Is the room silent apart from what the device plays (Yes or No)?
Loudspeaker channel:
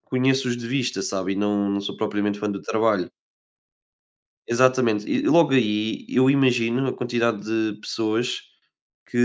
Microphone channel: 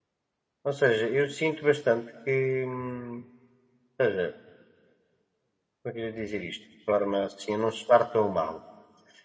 No